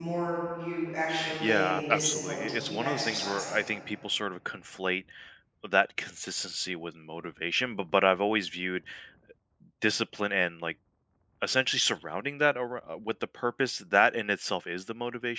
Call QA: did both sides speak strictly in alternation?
No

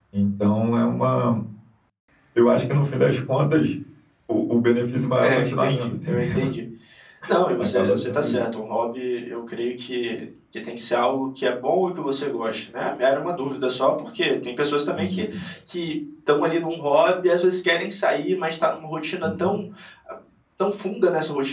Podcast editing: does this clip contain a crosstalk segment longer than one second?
Yes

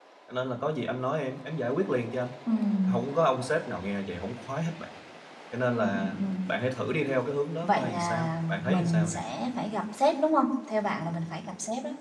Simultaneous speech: Yes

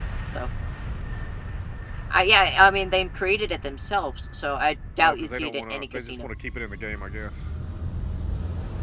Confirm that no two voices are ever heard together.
No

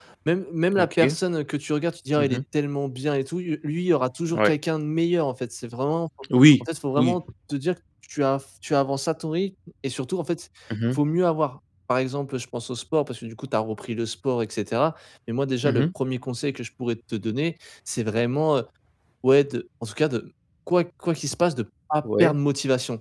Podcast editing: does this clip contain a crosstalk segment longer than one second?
No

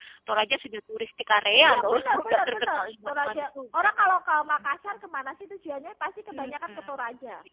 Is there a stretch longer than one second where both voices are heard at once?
Yes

